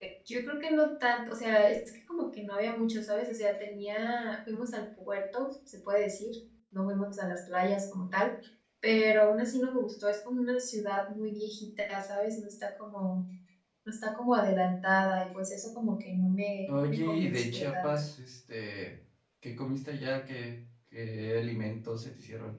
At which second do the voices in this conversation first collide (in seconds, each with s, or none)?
16.7 s